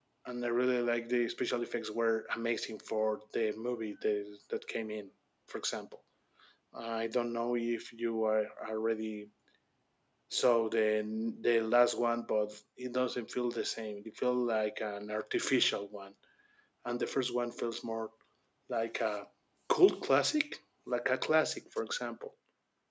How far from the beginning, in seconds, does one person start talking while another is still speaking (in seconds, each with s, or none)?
none